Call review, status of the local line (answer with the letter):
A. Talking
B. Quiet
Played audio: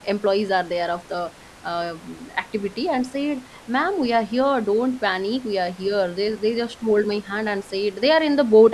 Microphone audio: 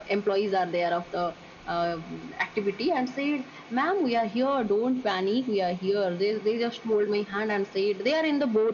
B